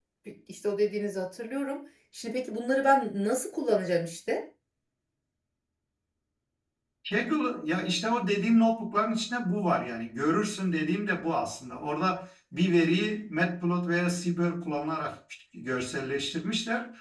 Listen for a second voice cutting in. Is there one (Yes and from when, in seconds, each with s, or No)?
No